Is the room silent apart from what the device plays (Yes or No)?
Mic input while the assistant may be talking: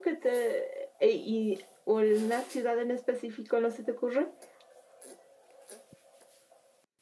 No